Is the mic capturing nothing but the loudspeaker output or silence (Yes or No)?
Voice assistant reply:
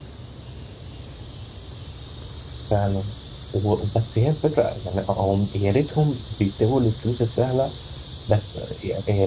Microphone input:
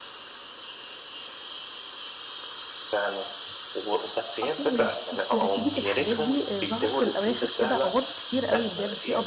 No